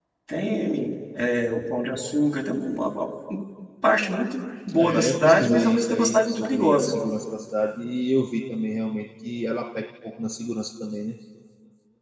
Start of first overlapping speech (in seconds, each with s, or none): 4.7 s